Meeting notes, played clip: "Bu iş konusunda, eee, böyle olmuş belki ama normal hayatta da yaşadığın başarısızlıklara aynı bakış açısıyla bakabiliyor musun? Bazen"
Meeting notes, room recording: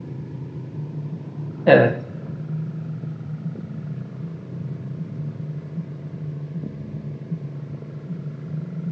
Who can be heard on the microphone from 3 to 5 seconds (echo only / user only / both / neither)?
neither